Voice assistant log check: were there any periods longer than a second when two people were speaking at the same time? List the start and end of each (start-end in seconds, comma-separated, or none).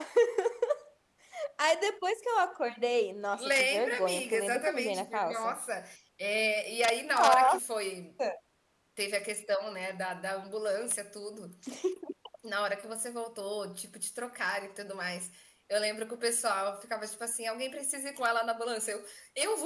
3.3-5.5